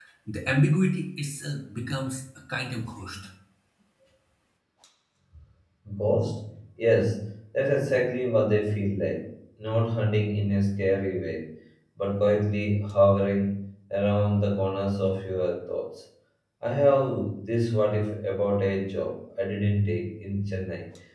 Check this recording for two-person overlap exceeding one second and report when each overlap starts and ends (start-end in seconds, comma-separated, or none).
none